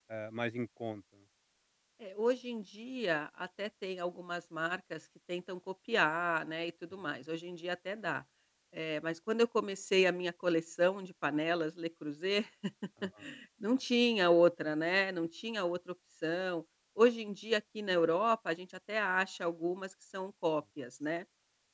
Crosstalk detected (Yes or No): No